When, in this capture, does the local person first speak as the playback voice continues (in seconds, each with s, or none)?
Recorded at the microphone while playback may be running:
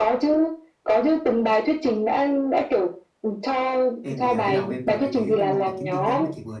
4.0 s